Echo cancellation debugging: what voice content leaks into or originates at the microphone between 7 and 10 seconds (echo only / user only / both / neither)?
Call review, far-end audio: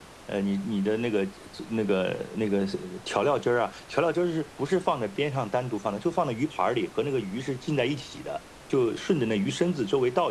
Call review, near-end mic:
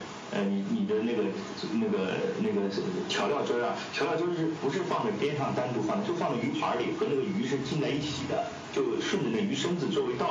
echo only